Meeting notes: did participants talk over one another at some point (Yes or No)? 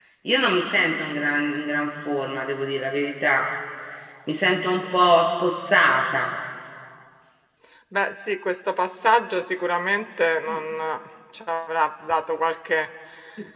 No